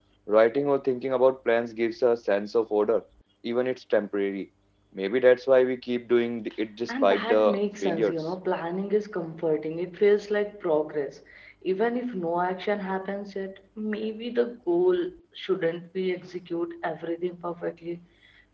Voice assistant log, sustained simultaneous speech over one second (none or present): present